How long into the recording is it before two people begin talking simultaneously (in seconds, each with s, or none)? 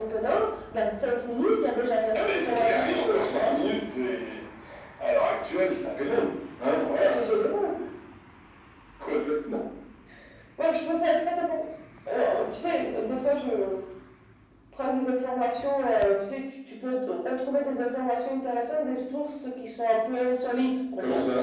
2.1 s